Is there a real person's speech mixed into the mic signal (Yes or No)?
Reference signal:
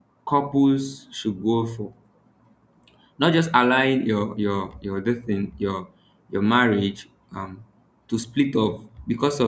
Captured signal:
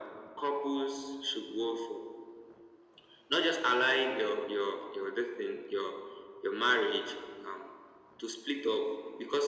No